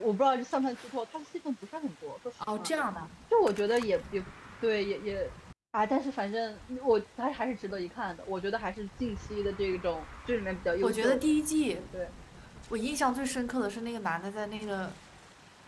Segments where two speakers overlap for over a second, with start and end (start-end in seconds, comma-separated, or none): none